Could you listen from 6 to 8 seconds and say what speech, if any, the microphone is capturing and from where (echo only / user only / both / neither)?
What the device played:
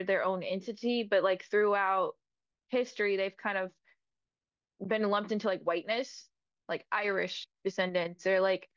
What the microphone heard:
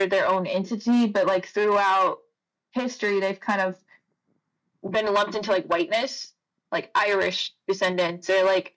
echo only